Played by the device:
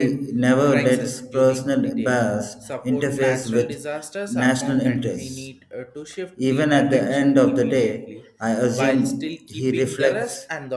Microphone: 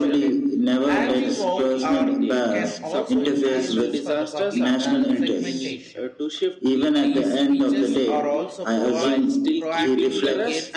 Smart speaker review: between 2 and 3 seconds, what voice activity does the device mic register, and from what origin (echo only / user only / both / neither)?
both